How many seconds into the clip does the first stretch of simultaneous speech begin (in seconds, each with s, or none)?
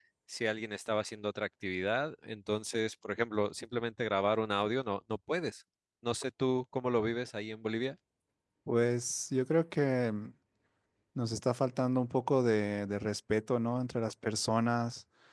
none